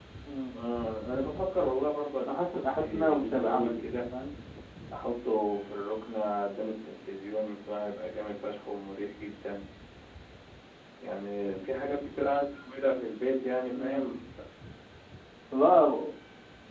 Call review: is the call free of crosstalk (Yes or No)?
No